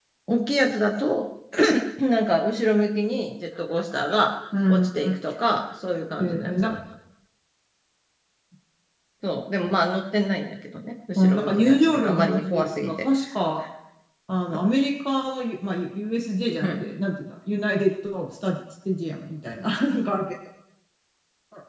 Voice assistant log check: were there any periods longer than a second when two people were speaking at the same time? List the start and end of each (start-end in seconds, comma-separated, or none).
11.2-13.1